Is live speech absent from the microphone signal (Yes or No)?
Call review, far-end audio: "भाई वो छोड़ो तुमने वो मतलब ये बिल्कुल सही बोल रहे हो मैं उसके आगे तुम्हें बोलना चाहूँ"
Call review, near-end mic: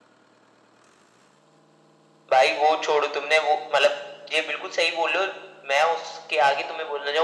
Yes